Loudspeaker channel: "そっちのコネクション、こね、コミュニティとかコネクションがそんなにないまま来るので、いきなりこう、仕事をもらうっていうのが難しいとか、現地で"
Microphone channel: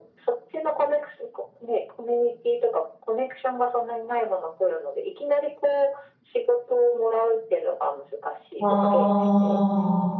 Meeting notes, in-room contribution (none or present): present